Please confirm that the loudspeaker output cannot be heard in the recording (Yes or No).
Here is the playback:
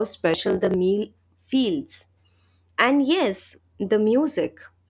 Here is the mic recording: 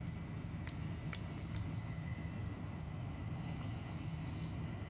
Yes